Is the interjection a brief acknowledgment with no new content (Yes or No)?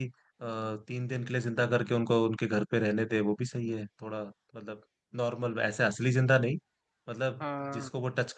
Yes